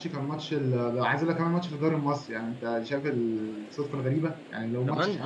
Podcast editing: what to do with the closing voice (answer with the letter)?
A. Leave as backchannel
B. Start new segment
A